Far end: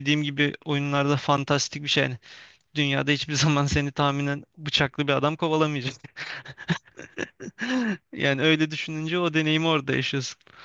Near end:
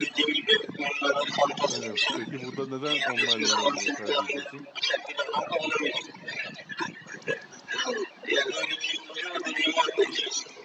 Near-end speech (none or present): present